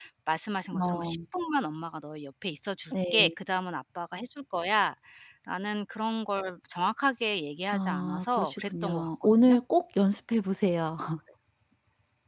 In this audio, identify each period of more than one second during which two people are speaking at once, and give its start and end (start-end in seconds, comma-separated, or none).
7.7-9.6